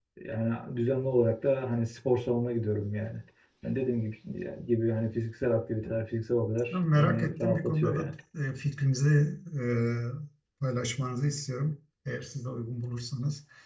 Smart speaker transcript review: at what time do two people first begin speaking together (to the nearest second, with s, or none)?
7 s